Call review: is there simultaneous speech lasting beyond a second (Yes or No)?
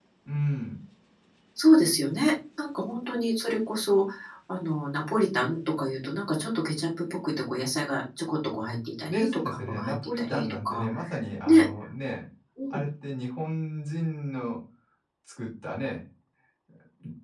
Yes